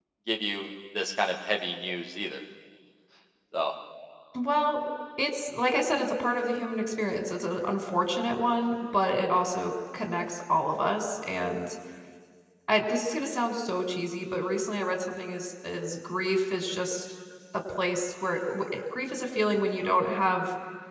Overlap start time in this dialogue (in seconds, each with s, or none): none